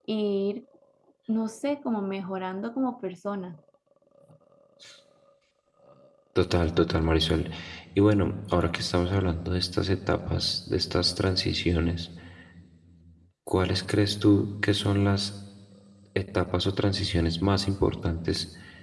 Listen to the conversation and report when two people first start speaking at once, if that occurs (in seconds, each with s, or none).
none